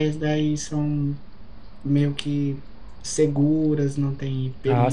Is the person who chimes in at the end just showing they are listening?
No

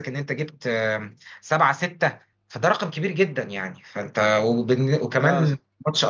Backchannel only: Yes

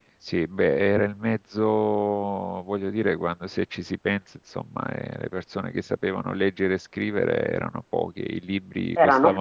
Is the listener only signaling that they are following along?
Yes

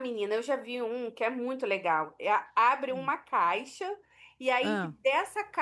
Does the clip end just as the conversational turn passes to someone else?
No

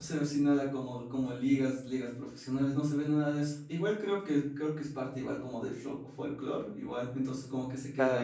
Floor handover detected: Yes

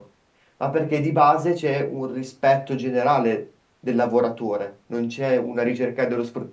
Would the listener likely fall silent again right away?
Yes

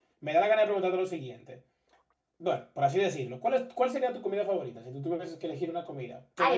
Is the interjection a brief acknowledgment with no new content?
No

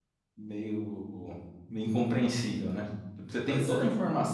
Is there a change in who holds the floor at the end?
No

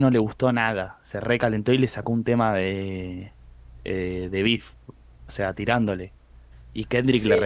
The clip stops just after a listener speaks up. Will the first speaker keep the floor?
Yes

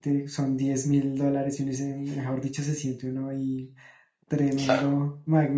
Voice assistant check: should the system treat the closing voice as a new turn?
No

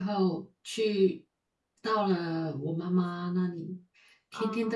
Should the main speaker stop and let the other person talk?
No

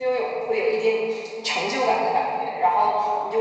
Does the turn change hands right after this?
No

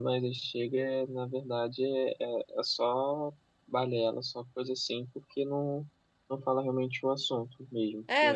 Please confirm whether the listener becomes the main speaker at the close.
Yes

